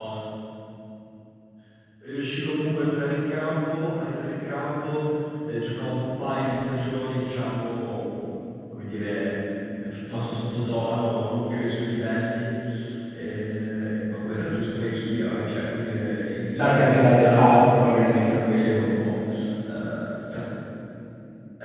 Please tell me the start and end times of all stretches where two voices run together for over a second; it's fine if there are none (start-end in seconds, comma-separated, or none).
16.5-18.5